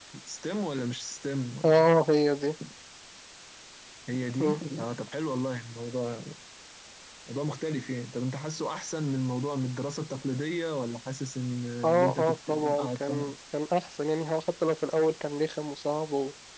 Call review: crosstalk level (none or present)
present